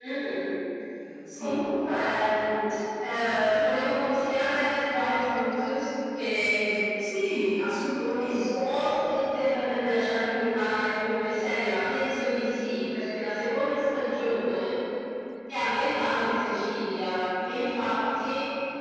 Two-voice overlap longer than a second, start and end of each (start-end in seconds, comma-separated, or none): 7.8-9.0